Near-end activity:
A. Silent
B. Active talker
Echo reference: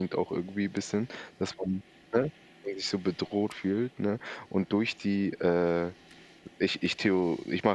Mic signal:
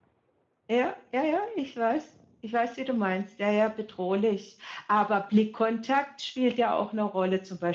B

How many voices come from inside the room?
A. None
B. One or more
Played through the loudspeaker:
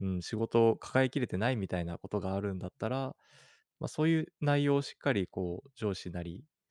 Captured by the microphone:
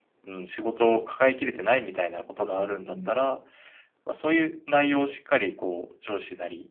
B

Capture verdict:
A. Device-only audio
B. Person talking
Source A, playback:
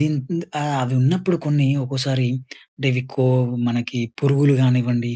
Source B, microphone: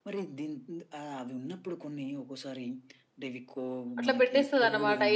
B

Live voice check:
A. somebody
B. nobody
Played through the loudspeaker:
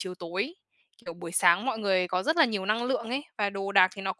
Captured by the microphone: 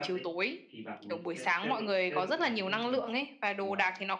A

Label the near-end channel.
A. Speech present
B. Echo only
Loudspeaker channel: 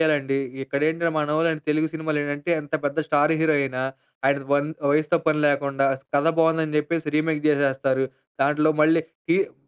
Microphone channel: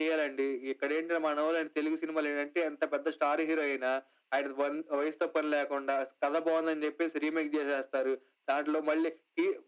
B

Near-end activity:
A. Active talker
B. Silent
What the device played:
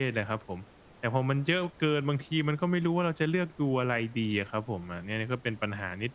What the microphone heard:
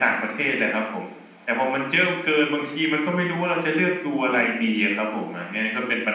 A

